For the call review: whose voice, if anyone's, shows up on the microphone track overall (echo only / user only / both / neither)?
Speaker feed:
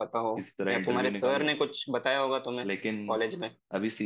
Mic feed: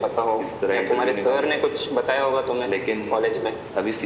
echo only